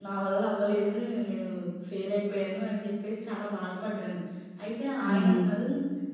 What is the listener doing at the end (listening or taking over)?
listening